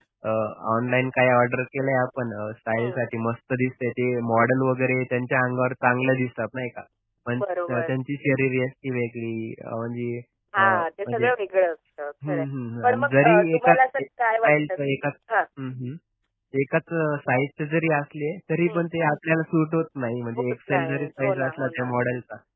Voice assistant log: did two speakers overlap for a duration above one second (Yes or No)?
Yes